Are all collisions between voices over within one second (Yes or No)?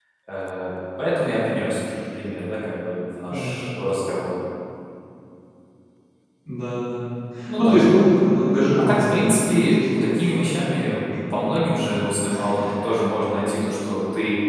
No